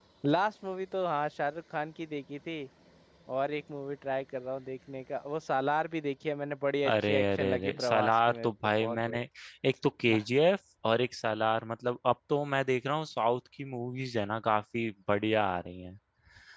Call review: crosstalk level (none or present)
present